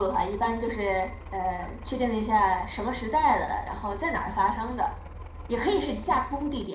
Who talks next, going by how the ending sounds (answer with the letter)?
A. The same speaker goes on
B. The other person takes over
A